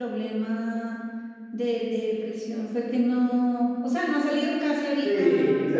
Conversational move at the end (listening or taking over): taking over